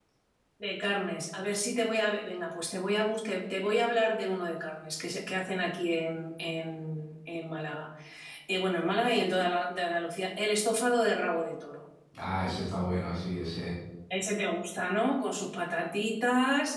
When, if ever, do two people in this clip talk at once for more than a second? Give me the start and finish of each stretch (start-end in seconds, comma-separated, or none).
none